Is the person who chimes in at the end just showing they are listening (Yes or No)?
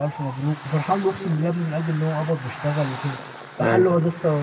Yes